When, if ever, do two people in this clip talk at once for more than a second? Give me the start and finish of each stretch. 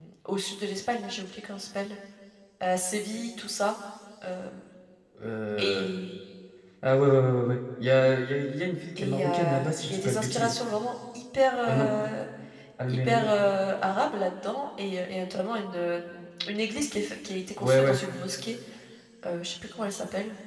9.0-10.5

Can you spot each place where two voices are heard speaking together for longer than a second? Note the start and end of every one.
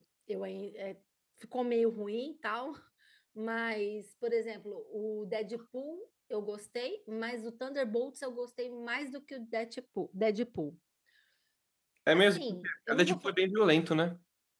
12.1-13.4

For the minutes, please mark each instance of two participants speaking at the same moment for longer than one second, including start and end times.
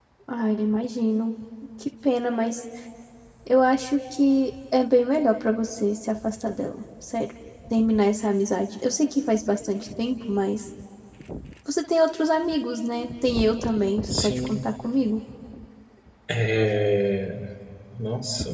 none

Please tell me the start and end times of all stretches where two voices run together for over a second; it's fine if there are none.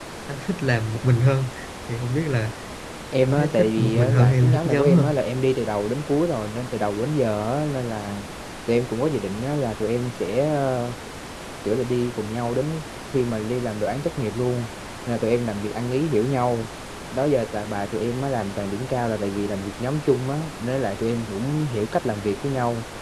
3.2-5.1

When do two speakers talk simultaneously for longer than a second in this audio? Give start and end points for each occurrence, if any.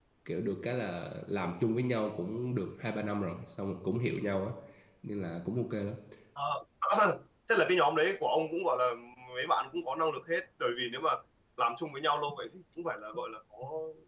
none

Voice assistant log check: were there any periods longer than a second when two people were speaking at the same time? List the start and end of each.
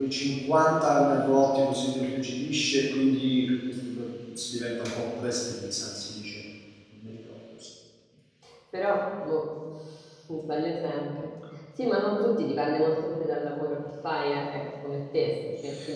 none

